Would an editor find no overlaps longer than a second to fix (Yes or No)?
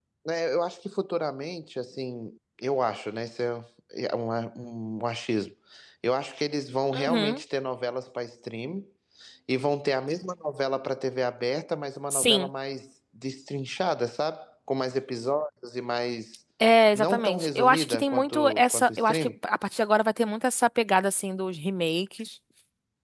No